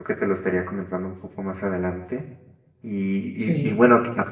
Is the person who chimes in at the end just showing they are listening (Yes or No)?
Yes